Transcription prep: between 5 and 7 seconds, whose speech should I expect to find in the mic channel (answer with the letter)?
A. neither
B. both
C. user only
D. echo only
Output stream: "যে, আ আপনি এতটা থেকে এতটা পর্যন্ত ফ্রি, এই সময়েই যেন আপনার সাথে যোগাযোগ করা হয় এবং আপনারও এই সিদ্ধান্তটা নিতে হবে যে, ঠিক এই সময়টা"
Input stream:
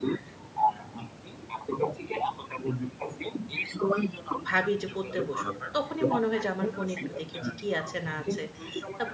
B